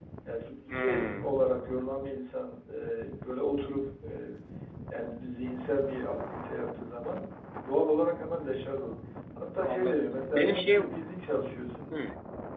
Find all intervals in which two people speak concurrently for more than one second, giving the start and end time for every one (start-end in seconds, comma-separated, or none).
9.6-11.0